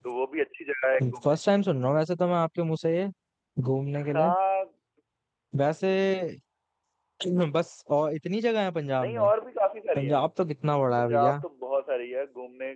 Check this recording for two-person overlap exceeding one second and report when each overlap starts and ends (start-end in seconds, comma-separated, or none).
none